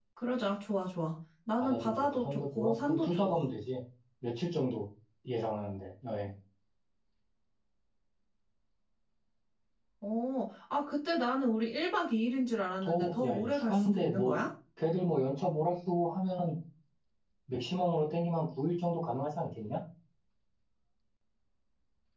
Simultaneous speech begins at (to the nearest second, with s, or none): 2 s